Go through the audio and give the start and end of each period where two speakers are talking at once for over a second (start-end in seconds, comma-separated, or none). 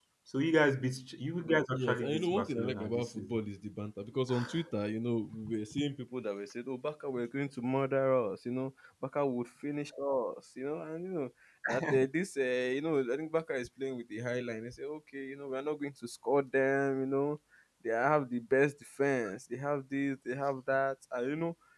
1.7-3.4